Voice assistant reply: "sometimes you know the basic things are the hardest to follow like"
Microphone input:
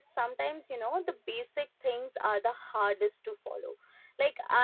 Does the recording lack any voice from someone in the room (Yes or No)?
Yes